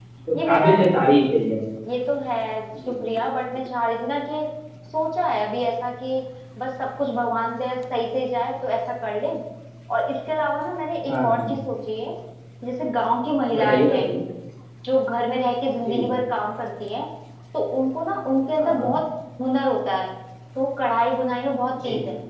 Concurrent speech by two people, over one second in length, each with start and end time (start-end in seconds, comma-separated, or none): none